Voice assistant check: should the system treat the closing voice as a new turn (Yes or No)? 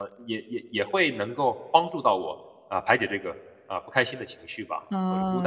Yes